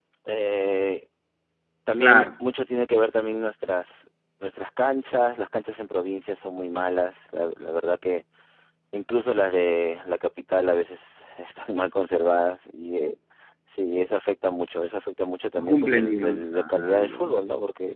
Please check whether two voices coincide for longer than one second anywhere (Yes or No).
Yes